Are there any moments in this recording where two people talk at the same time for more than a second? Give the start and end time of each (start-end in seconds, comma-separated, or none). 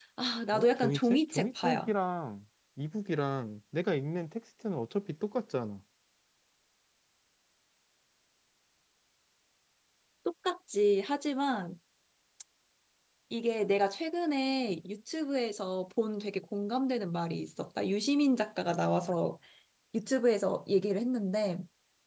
0.5-1.9